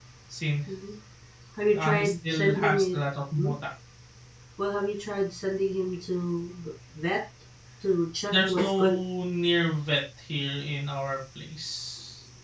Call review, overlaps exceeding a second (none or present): present